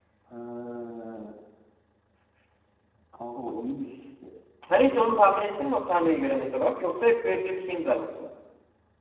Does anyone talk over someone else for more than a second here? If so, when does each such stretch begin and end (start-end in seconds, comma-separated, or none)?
none